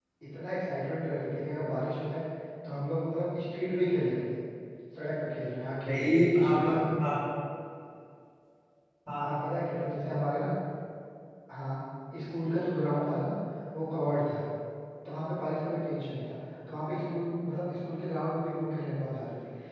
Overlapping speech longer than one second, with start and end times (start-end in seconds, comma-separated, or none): 5.9-7.1